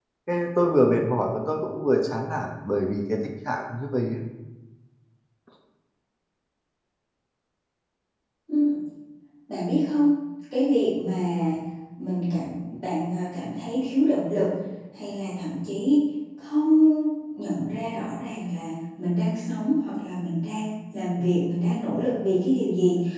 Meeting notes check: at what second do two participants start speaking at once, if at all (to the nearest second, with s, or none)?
none